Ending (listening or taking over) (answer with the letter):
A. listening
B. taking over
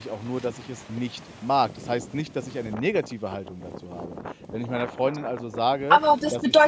B